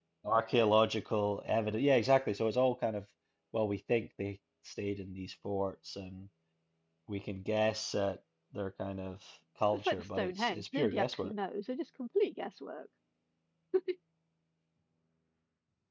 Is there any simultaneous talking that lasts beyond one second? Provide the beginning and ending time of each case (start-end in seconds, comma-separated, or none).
9.7-11.3